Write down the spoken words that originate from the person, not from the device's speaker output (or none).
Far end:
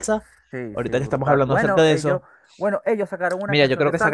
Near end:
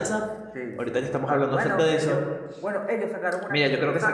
none